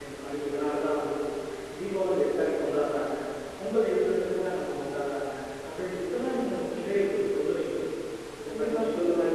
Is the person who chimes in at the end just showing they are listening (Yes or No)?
No